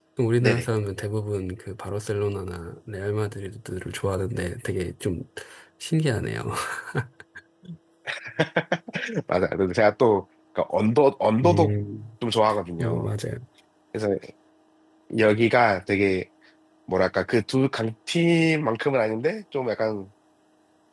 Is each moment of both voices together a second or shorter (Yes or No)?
Yes